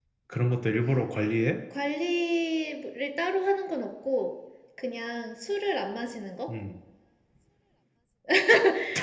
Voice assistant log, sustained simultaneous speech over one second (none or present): none